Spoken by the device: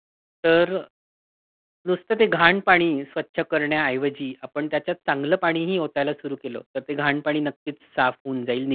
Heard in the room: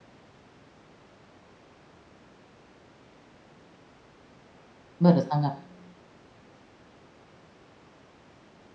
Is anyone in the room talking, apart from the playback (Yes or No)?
Yes